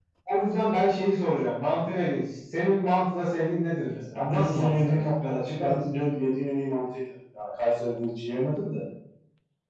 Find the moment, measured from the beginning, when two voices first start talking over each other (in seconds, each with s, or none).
4.3 s